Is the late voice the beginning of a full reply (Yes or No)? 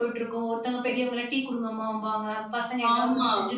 Yes